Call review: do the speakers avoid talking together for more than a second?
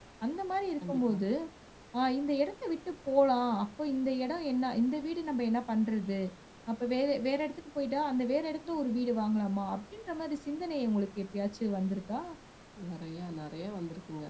Yes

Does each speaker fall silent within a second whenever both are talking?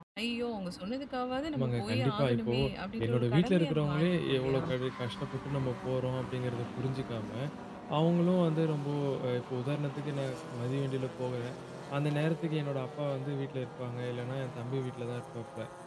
No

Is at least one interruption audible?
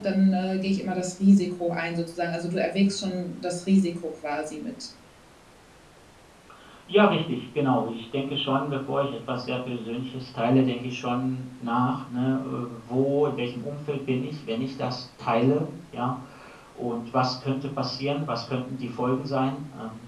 No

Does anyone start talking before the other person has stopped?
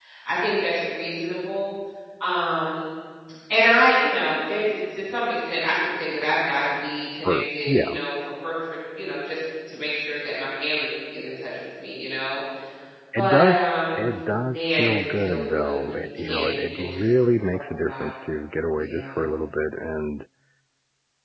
Yes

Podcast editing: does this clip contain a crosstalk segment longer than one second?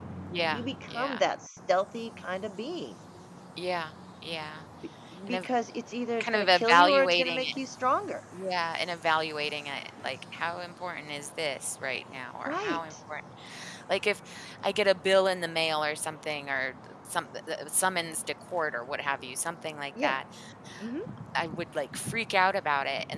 Yes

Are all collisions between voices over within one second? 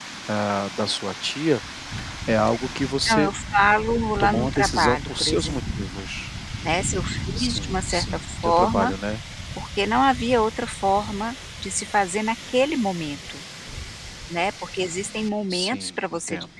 No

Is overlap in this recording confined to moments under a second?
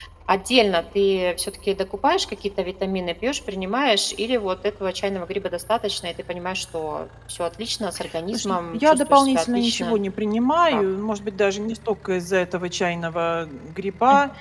No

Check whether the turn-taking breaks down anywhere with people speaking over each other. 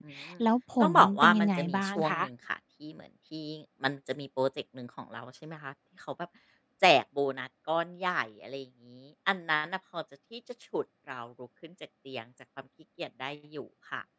Yes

